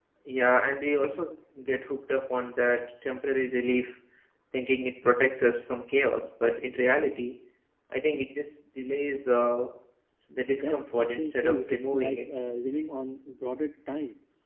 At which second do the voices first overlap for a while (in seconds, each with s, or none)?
10.6 s